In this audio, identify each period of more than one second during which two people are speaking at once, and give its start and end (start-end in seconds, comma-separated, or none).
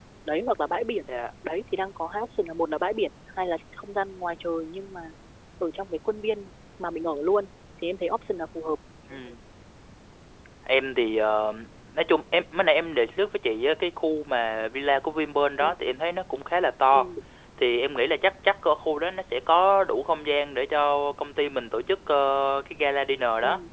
none